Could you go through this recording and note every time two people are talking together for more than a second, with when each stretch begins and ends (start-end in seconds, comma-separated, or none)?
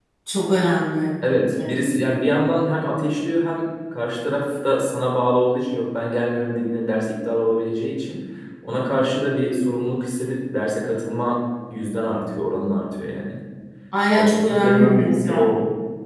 14.1-15.5